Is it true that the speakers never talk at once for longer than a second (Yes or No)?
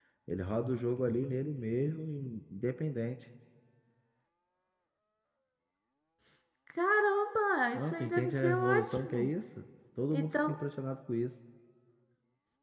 No